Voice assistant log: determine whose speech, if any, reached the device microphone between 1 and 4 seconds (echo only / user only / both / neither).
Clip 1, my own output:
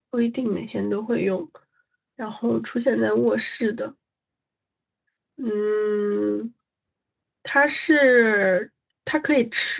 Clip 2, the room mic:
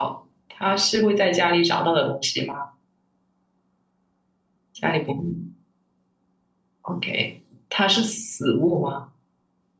user only